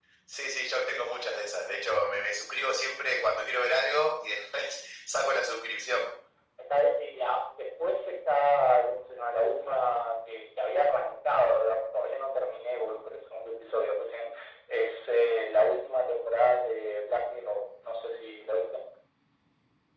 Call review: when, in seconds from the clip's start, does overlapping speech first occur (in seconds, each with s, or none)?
none